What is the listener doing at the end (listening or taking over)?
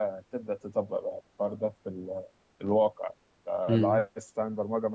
listening